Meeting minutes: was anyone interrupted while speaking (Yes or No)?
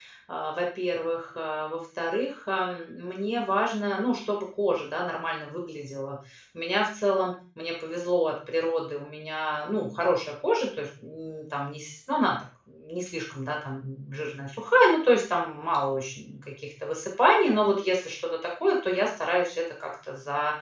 No